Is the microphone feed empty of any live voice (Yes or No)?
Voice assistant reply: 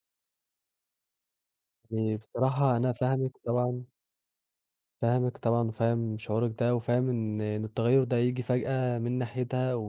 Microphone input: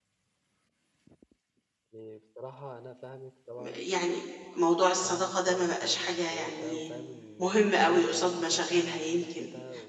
No